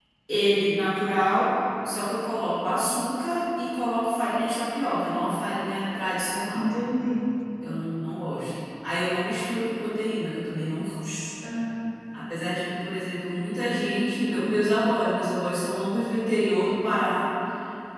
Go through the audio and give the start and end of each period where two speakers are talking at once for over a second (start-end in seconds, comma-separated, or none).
none